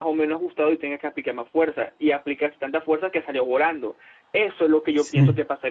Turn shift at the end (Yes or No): No